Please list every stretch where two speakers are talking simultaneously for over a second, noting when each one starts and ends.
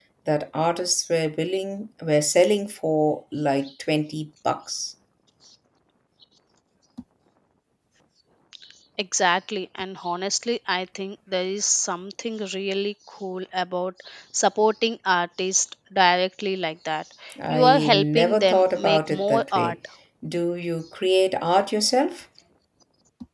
17.5-19.8

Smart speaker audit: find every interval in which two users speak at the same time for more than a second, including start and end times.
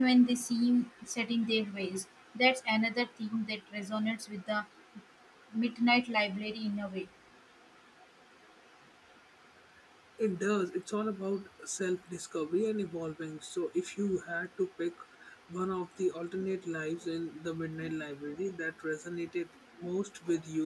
none

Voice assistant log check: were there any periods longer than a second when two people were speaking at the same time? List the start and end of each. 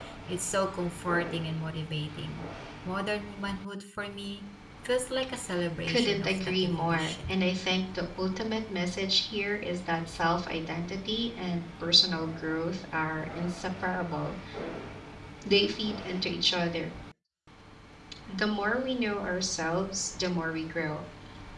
5.9-7.3

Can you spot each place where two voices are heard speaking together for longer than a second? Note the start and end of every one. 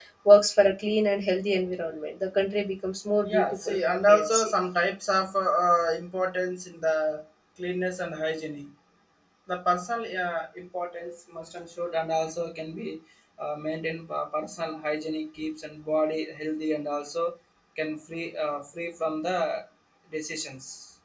3.3-4.5

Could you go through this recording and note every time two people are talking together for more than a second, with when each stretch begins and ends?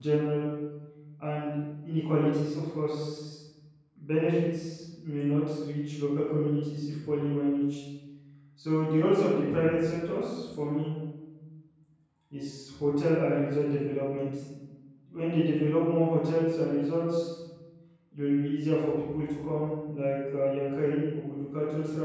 none

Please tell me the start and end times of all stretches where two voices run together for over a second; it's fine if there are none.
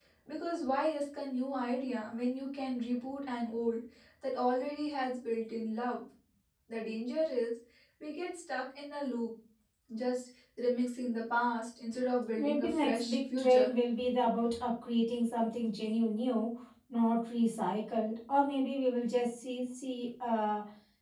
12.4-13.7

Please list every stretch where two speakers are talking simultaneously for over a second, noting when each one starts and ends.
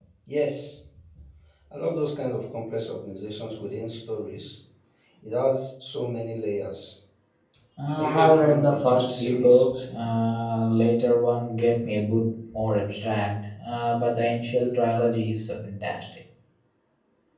7.9-9.6

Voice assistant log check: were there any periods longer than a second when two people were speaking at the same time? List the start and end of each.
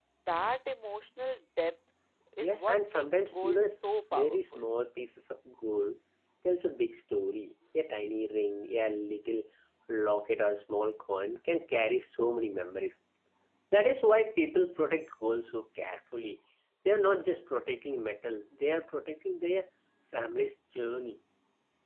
2.4-4.6

